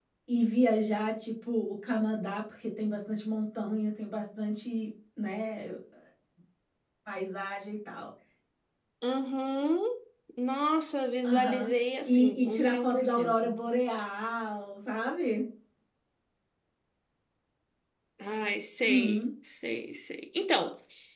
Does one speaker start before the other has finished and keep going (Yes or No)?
Yes